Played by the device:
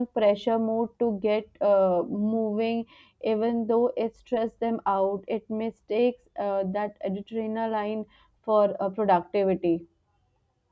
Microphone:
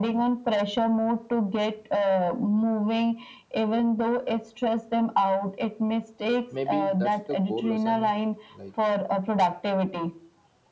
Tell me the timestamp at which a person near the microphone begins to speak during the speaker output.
7 s

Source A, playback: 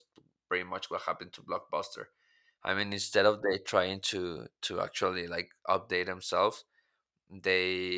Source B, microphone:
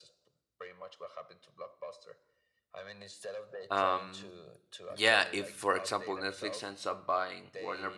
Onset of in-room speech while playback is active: 4 s

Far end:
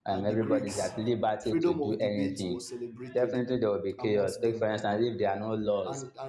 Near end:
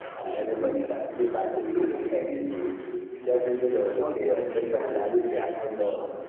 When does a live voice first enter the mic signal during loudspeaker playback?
4 s

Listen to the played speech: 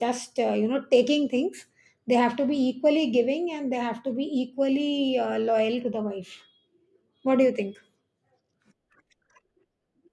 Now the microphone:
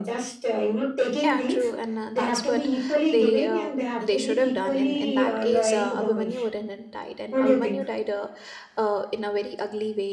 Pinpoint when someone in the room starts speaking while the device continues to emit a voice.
1 s

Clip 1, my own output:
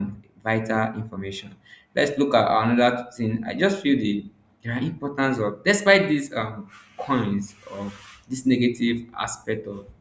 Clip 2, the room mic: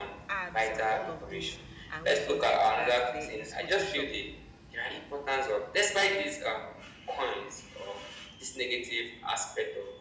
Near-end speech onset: 0 s

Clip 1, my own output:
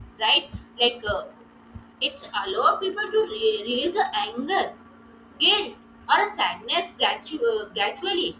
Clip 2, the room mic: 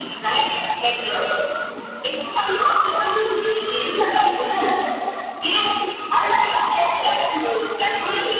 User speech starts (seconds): none

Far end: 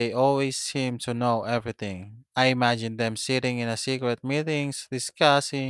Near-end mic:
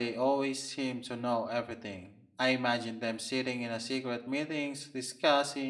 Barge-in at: none

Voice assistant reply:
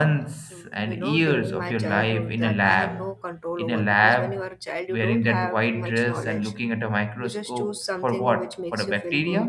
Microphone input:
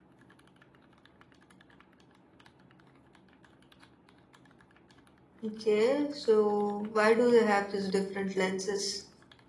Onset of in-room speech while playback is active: 5 s

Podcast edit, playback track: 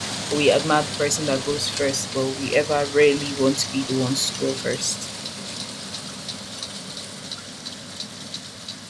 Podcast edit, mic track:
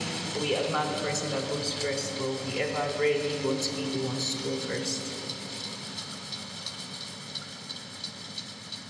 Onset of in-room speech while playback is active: none

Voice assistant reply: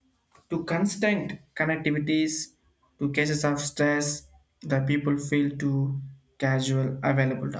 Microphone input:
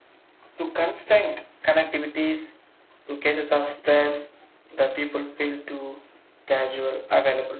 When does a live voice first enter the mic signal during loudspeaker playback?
none

